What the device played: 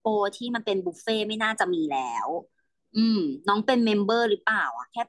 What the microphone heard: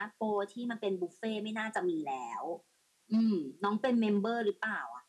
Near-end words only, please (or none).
none